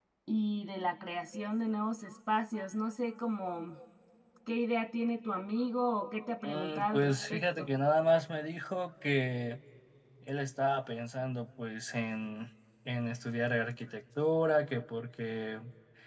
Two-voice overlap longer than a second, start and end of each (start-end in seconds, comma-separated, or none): 6.4-7.7